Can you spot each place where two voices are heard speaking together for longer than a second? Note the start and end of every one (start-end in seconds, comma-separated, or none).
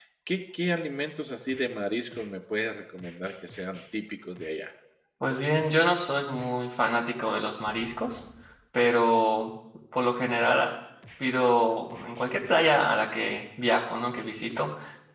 none